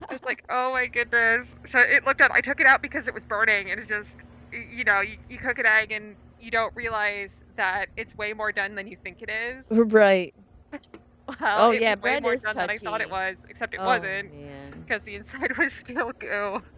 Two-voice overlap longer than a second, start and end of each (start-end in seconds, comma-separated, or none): 11.6-13.0